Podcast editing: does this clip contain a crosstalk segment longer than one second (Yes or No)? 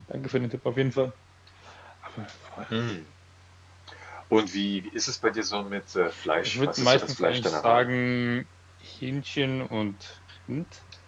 Yes